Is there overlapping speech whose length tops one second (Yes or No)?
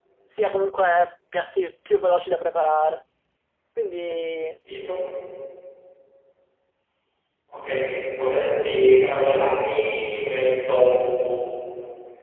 No